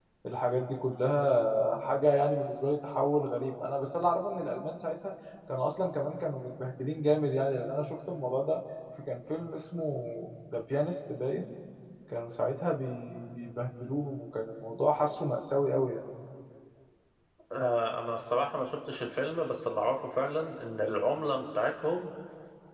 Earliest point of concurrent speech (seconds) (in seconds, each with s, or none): none